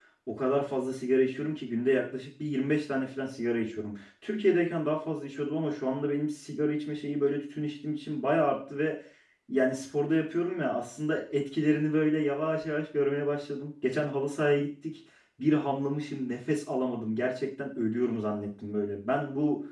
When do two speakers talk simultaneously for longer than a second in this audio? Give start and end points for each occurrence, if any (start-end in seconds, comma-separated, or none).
none